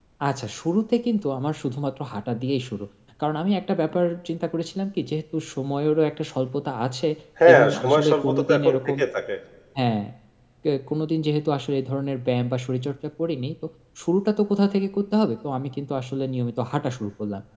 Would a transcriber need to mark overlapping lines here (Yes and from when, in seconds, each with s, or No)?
Yes, from 7.5 s